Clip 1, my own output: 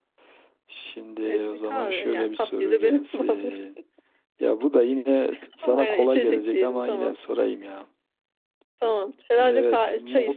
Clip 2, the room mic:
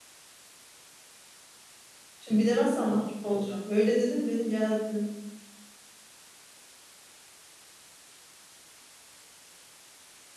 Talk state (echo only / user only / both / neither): user only